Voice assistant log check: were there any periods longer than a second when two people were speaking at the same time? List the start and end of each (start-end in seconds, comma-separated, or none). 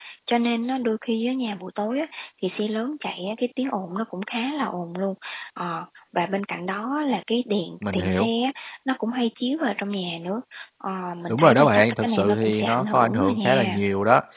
11.3-13.8